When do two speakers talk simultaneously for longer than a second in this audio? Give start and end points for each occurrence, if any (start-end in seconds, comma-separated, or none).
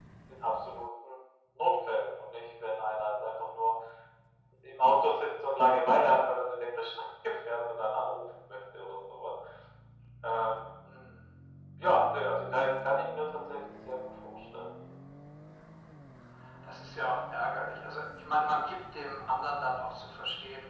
none